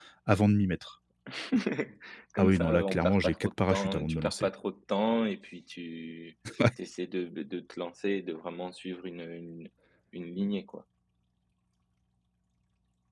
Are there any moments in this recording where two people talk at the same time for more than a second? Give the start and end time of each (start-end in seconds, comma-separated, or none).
2.4-4.5